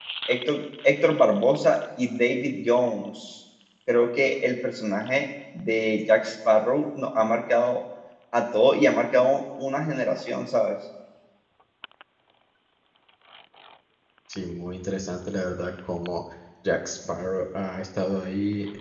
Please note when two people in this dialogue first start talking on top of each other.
none

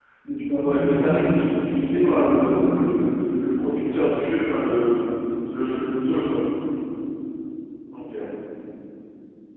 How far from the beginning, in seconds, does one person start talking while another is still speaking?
0.6 s

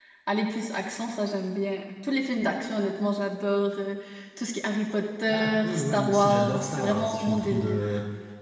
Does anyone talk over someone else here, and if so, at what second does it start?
5.3 s

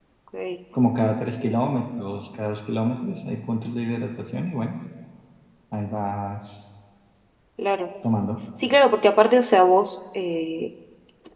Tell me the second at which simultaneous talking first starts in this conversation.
none

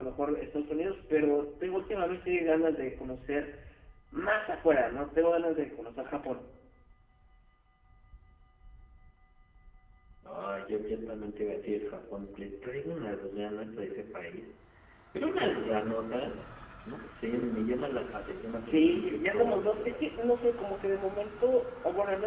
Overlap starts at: 18.6 s

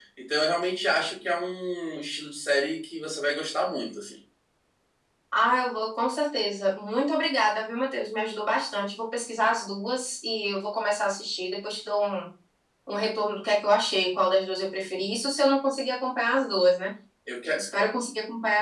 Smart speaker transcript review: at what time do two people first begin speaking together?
none

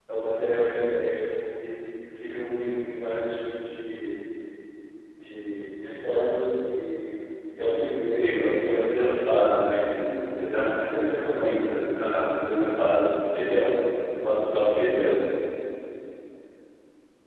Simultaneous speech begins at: 7.7 s

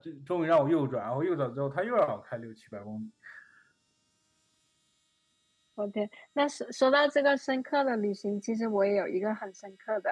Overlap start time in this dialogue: none

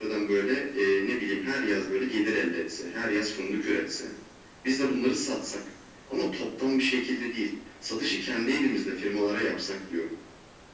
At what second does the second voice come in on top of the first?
none

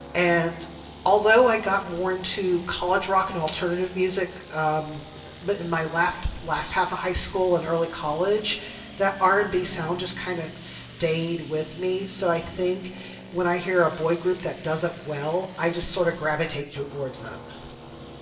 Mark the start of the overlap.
none

